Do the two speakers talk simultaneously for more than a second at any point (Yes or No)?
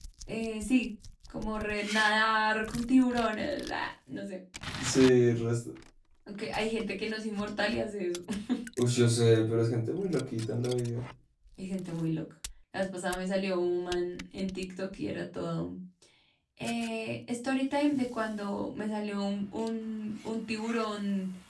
No